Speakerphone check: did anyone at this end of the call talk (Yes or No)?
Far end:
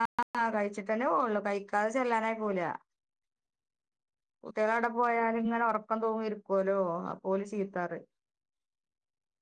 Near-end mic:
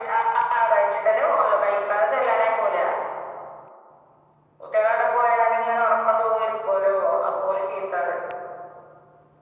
No